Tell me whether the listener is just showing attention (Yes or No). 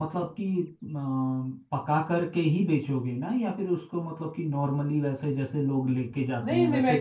No